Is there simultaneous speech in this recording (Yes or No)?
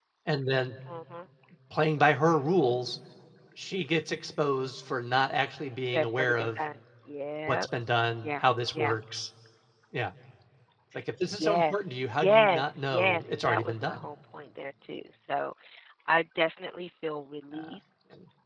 Yes